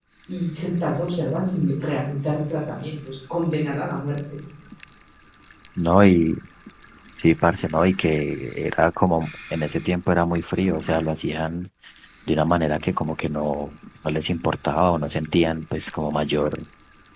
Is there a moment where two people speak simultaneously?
No

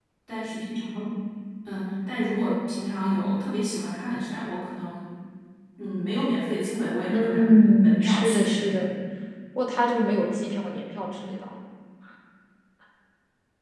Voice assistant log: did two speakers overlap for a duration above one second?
Yes, from 7.1 s

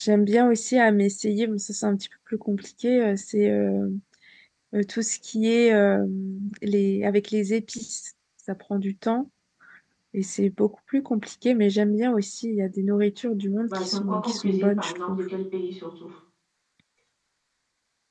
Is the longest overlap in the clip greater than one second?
Yes, from 13.7 s

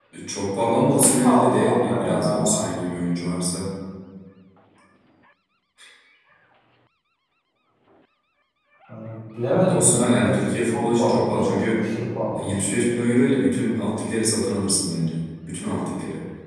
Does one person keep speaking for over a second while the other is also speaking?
Yes, from 0.9 s

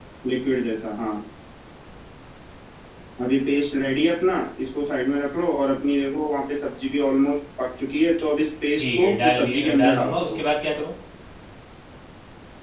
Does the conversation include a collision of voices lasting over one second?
Yes, from 8.8 s

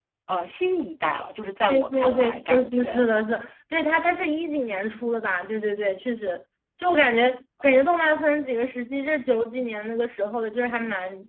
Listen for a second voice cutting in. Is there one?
Yes, from 1.7 s

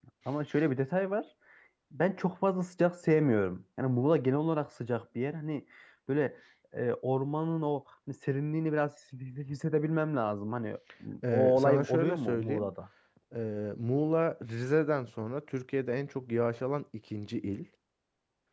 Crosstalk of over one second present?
Yes, from 11.3 s

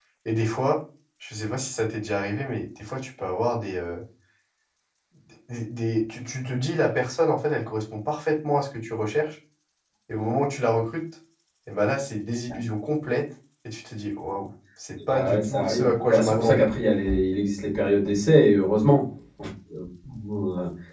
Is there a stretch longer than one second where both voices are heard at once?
Yes, from 15.0 s

